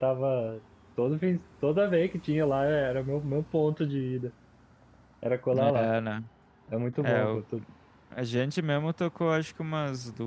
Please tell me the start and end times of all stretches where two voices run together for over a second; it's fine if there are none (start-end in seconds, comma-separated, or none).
none